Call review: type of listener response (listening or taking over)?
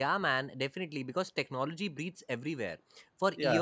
listening